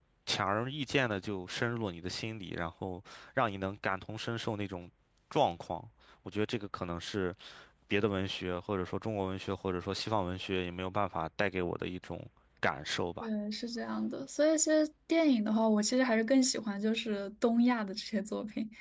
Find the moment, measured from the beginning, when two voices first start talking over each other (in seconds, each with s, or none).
none